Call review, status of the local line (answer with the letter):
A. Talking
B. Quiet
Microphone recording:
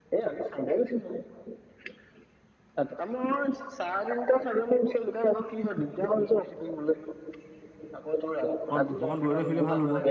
A